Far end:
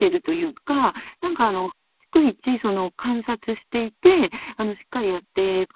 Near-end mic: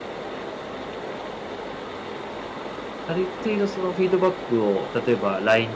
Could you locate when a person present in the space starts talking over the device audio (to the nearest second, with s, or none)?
3 s